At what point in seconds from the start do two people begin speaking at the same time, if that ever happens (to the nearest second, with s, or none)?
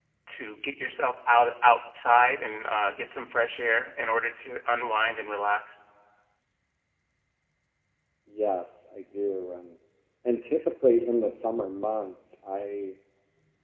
none